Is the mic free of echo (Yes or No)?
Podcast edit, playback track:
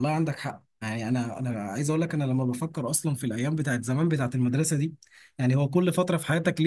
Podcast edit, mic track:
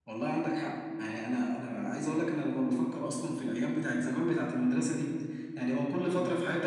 No